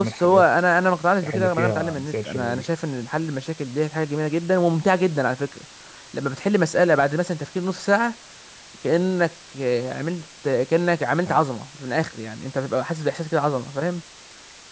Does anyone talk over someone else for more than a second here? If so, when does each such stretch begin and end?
1.3-2.6

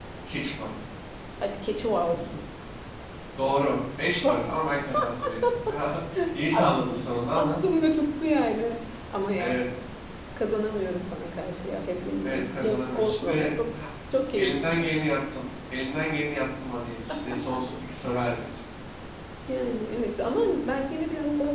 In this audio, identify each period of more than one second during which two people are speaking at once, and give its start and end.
12.2-13.6

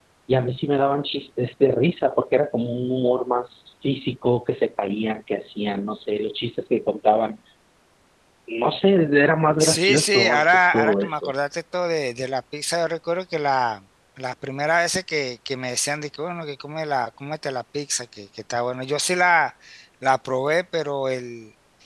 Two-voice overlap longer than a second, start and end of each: 9.6-11.3

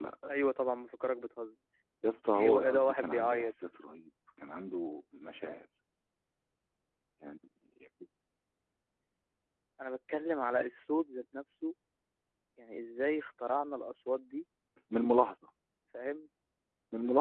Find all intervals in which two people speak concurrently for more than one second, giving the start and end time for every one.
2.3-3.5

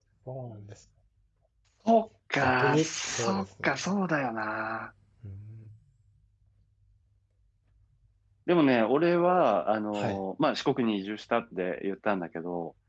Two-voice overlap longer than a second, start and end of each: 2.4-3.7

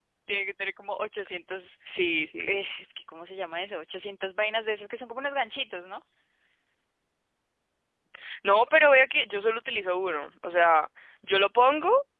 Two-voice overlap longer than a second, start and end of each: none

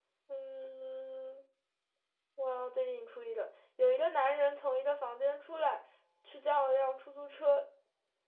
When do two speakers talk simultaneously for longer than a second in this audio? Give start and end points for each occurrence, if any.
none

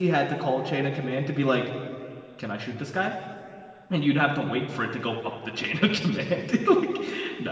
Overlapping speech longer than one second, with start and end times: none

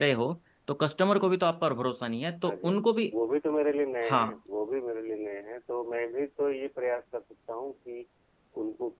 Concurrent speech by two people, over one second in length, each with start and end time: none

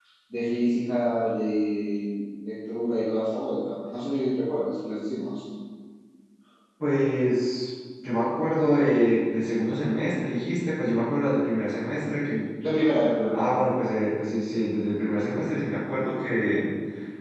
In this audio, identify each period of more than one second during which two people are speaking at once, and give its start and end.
none

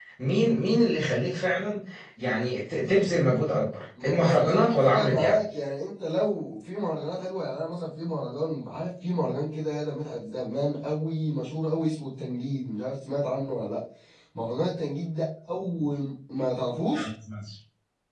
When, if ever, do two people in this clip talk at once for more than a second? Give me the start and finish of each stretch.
4.0-5.4

